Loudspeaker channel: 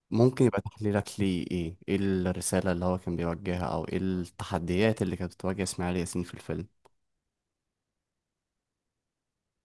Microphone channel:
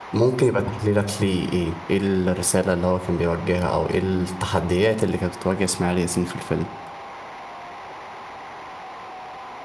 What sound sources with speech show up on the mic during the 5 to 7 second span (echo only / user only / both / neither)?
echo only